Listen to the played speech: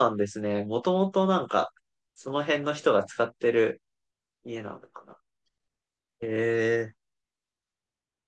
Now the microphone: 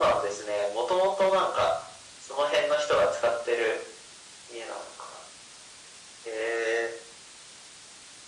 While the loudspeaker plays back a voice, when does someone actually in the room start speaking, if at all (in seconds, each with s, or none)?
none